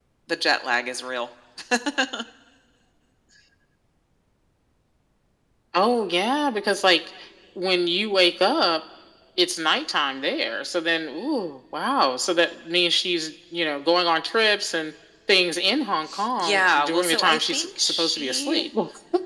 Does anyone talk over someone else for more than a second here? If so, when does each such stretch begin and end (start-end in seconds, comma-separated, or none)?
16.4-18.7